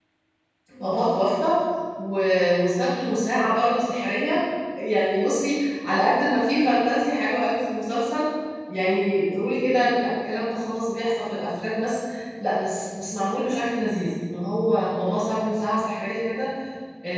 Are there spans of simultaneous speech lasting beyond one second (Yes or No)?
No